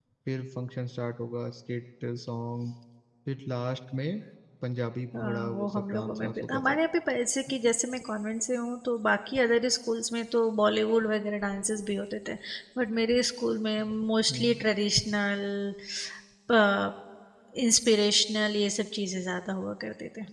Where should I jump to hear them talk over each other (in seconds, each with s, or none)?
5.2 s